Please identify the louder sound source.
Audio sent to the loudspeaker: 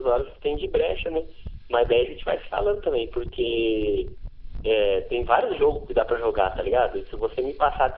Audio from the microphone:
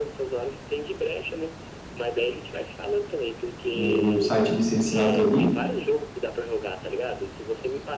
user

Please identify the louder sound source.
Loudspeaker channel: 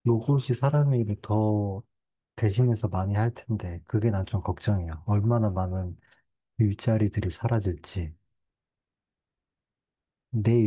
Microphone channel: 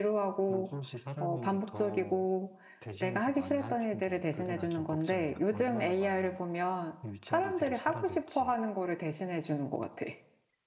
user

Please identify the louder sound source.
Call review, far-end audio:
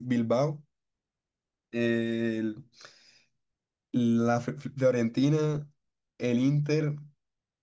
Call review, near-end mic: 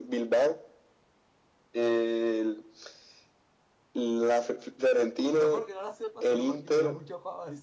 echo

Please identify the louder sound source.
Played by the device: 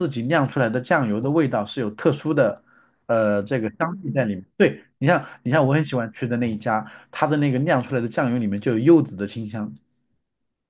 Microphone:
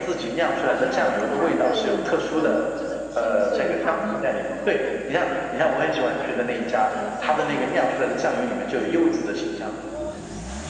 echo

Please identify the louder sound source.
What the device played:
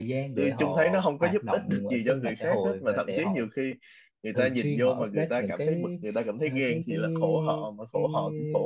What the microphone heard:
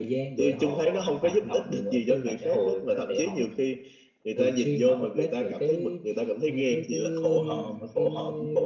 echo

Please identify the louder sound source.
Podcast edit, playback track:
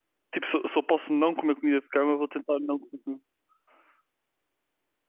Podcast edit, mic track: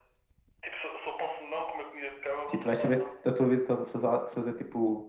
user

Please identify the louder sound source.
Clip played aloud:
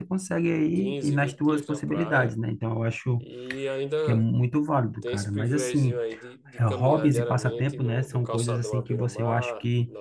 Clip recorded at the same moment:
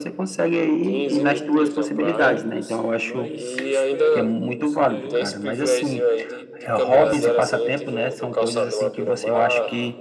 echo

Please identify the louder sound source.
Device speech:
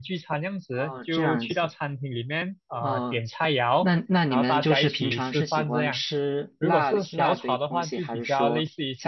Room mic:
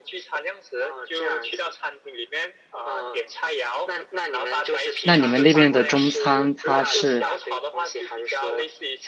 user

